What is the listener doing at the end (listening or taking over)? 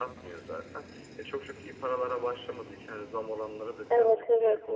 listening